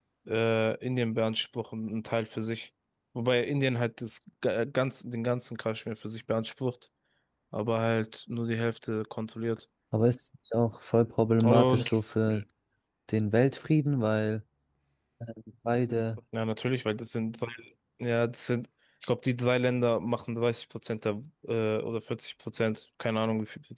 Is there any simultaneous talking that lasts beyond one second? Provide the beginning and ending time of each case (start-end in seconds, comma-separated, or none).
none